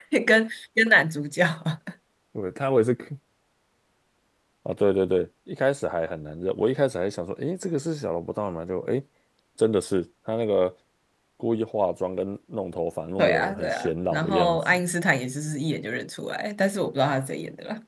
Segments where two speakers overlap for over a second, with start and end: 13.2-14.6

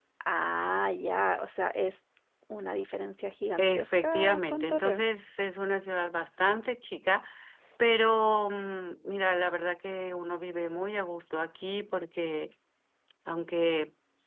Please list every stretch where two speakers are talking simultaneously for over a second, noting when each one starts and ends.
3.6-5.0

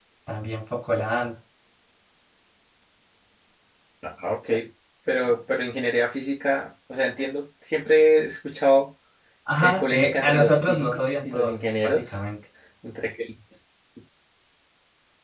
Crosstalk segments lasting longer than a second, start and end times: 9.6-12.2

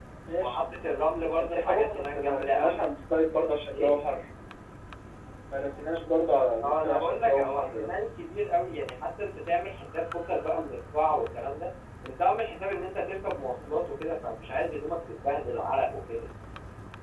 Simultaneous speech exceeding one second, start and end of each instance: 1.4-2.8, 6.6-7.9

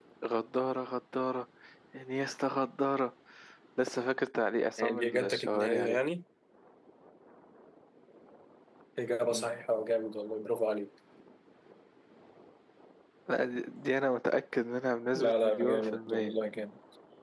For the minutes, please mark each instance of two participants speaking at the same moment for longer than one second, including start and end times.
4.8-6.0, 15.1-16.4

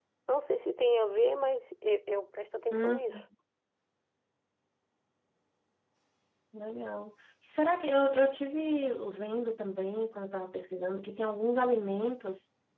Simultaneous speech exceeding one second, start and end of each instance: none

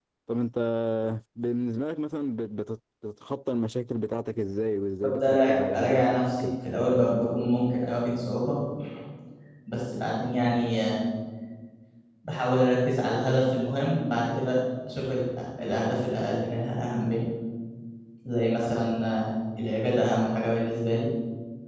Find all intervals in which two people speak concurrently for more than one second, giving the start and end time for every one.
5.0-6.5

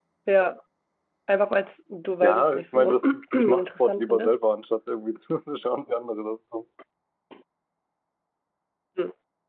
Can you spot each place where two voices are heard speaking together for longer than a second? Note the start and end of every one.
2.2-4.4

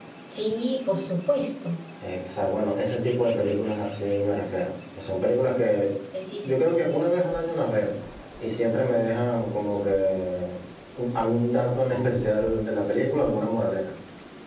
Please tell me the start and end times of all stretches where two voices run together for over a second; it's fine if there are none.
none

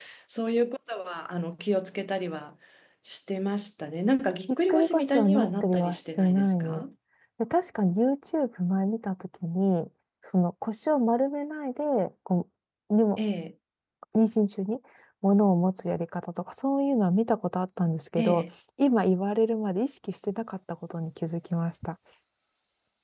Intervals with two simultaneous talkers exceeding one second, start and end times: 4.7-6.8

